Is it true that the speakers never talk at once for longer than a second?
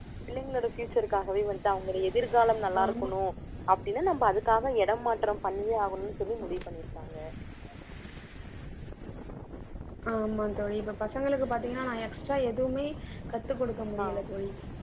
Yes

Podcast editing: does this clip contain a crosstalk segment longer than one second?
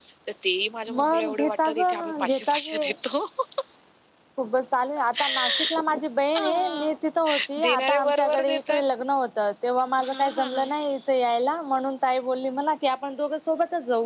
Yes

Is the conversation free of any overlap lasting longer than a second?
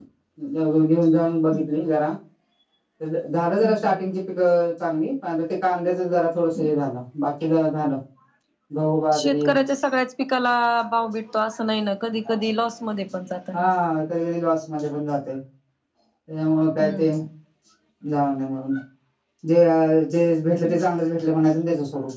Yes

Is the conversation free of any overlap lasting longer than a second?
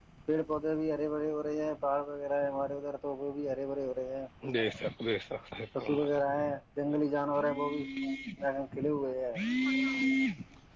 Yes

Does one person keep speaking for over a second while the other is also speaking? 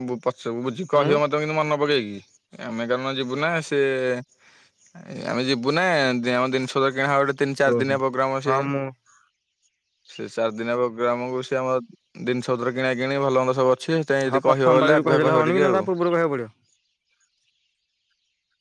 Yes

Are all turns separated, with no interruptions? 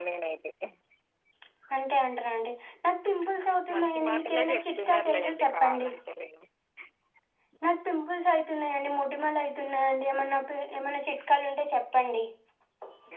No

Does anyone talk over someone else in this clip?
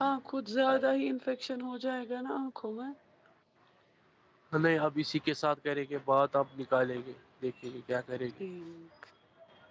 No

